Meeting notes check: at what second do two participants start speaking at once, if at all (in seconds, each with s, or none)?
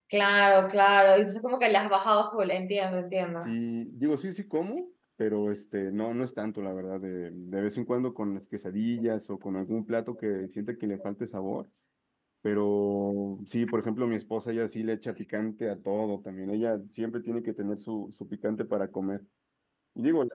none